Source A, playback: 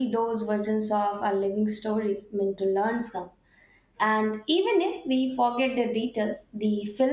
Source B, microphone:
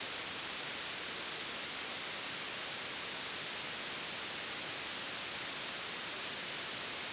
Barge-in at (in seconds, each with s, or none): none